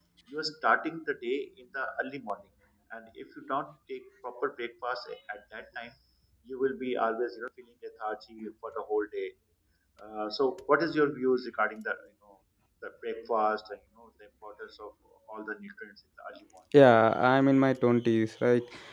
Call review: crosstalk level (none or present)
none